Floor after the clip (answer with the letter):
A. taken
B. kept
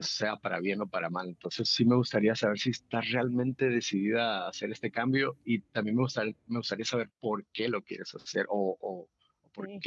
B